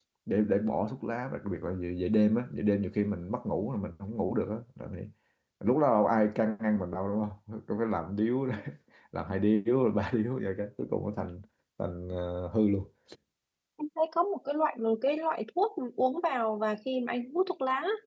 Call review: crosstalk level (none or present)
none